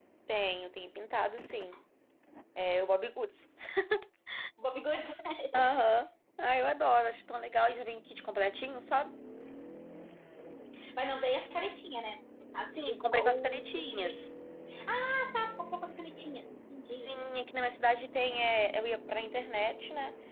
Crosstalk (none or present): present